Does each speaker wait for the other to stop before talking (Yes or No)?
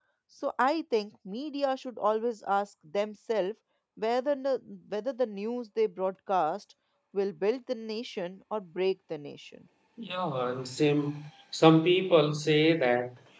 Yes